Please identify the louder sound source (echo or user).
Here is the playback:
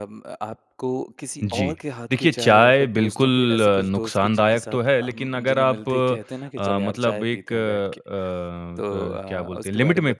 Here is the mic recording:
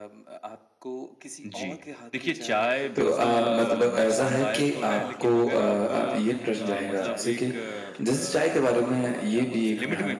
user